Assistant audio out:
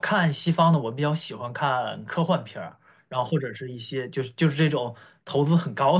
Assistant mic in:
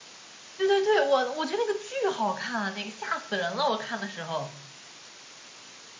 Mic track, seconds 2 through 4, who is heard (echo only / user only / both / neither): user only